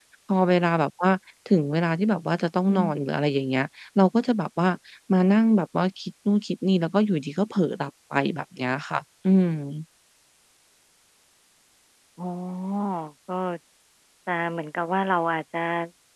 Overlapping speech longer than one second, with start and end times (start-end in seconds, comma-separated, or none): none